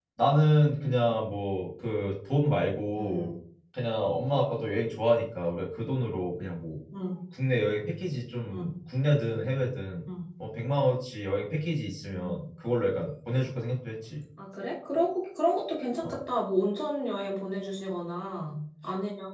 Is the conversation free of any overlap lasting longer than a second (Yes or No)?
Yes